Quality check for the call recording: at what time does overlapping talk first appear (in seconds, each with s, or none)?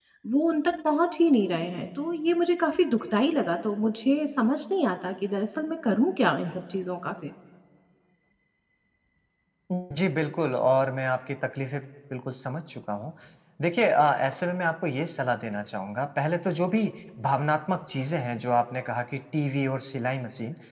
none